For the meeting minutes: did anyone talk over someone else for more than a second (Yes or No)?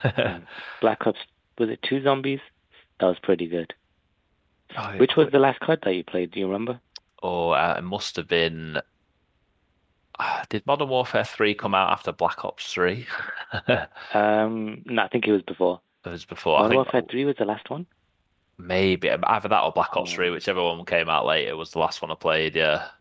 No